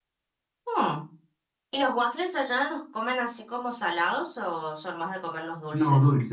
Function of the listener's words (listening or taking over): taking over